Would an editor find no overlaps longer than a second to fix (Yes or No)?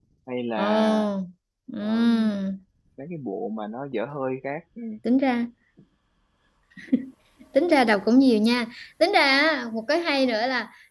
Yes